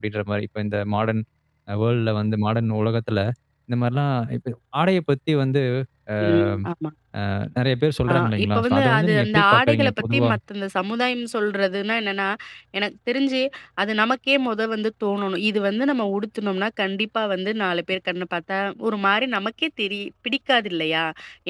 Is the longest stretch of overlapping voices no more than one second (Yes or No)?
No